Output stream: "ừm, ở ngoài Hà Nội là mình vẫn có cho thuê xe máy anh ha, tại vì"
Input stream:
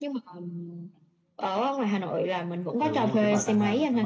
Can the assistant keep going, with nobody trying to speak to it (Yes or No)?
No